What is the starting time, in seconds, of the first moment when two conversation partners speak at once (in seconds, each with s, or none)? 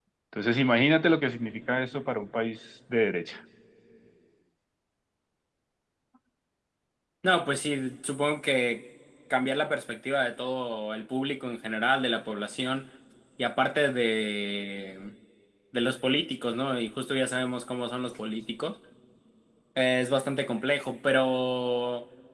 none